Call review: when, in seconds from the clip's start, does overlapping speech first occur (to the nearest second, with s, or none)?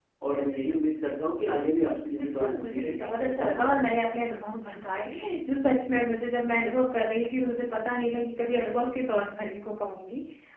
2 s